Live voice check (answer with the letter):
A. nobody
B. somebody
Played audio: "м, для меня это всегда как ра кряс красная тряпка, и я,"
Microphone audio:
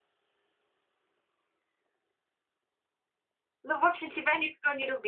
B